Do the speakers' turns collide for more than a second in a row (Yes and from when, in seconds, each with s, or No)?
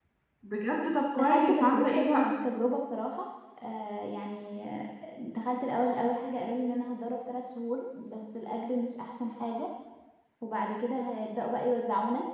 Yes, from 1.2 s